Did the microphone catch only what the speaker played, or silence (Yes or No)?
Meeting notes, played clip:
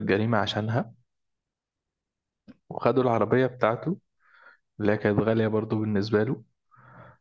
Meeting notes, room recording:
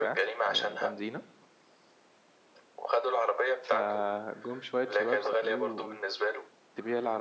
No